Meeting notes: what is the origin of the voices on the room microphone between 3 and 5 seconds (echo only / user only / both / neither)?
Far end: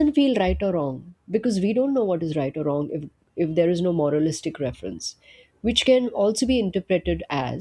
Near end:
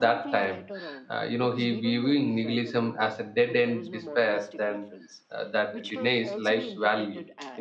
both